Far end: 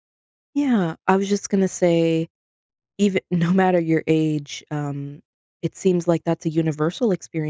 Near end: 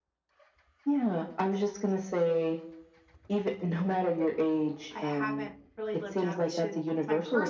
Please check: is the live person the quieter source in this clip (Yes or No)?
Yes